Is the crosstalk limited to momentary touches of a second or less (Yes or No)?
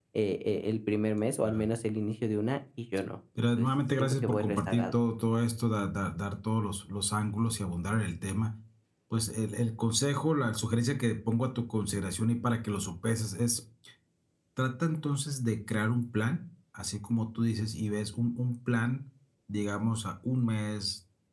No